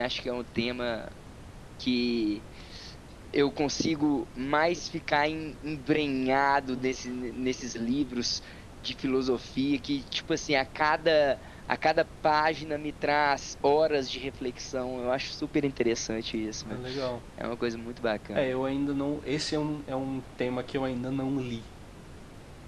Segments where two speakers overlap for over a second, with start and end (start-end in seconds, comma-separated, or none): none